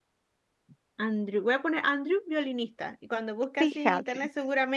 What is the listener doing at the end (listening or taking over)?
listening